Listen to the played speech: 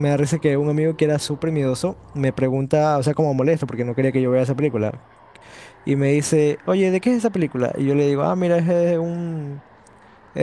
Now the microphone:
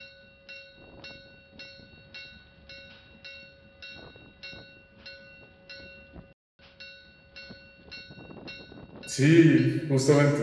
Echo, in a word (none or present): none